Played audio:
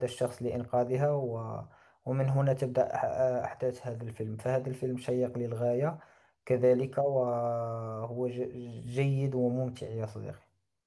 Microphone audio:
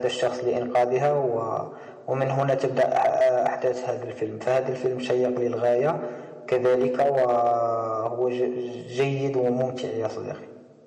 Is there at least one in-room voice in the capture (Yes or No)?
No